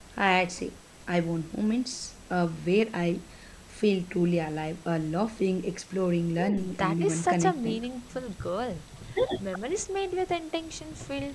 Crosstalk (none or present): present